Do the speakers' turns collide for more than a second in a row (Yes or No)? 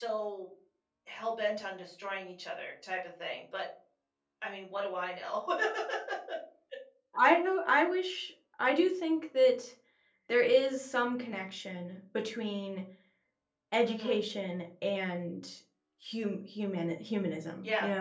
No